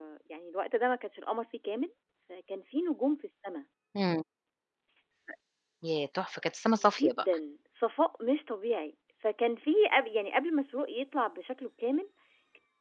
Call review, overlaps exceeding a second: none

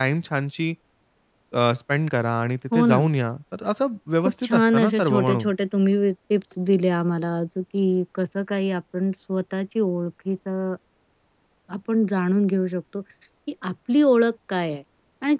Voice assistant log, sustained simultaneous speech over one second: present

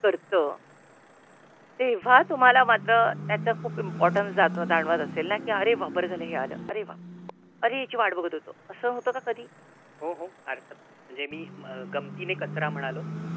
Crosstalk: none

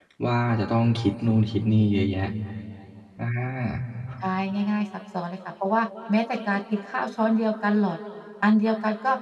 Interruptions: none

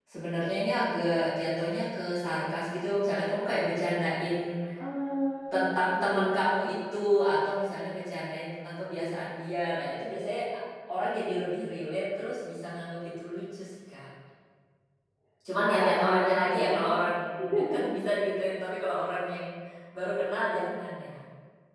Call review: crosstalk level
present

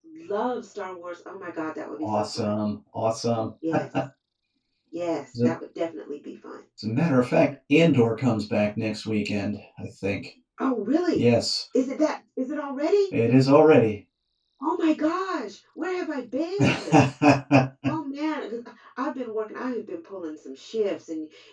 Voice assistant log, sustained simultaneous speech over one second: none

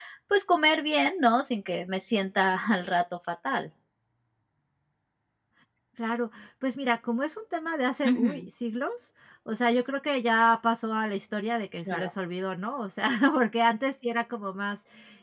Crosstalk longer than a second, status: none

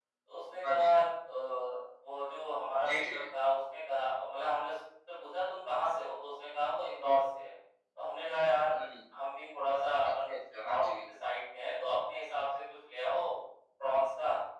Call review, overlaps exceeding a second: none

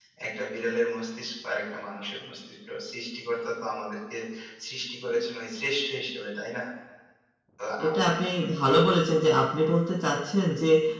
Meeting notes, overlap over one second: none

